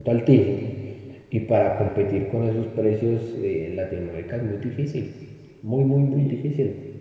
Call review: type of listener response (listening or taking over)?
taking over